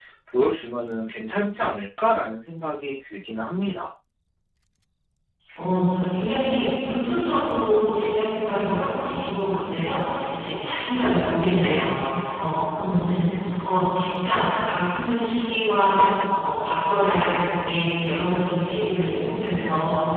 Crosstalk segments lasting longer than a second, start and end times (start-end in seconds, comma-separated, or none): none